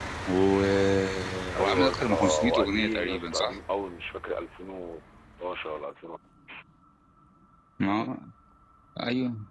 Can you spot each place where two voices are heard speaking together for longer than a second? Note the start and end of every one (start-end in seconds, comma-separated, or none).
1.6-3.6